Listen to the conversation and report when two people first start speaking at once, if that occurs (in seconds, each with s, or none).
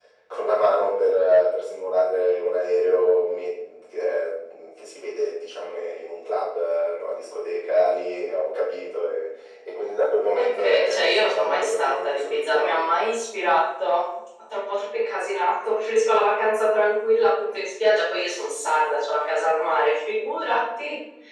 10.3 s